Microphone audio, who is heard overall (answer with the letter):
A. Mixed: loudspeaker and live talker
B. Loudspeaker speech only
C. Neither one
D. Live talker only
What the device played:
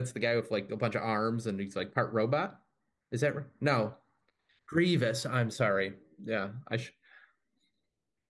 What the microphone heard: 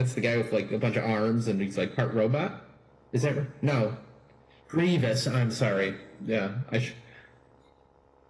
B